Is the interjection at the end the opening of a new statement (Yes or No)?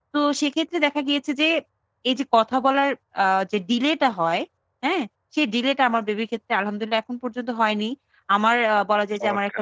No